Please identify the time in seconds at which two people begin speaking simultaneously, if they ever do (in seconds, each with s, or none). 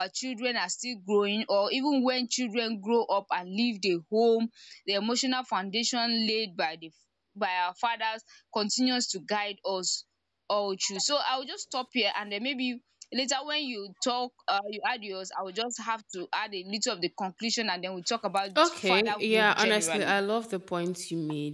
18.6 s